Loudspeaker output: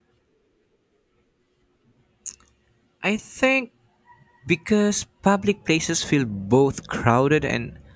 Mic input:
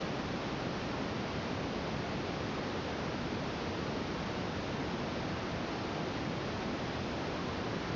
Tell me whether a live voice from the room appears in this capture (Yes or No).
No